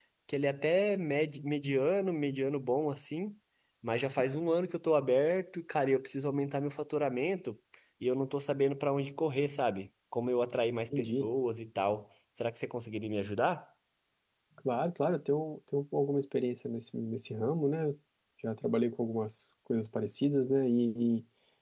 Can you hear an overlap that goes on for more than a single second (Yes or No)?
No